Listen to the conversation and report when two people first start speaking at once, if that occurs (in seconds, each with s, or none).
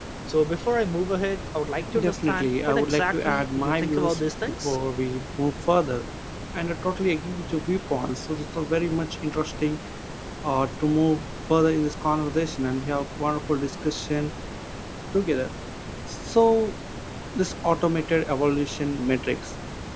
1.9 s